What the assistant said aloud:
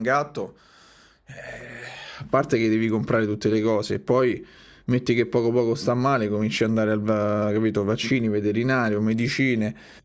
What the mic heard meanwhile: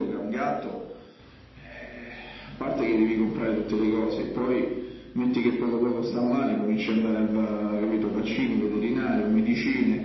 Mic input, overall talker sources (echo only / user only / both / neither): echo only